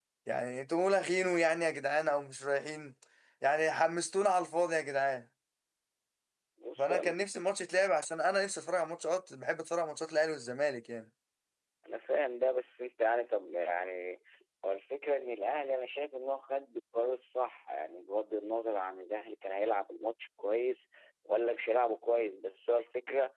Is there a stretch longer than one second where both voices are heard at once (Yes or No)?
No